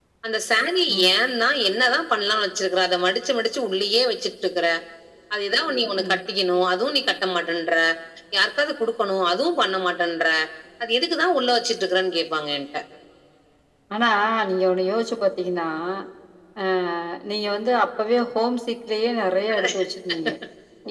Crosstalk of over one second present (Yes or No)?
No